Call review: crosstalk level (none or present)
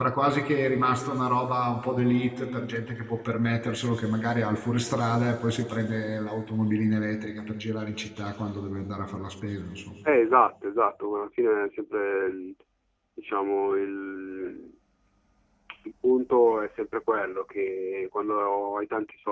none